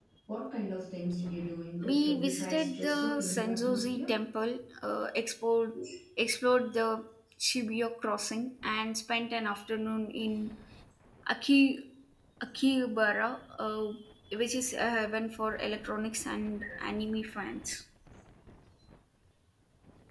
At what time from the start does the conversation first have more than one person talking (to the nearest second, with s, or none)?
2 s